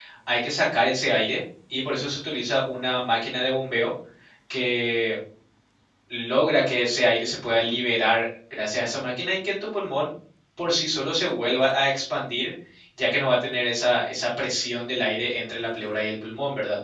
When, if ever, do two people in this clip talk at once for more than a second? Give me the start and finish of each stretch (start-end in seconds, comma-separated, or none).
none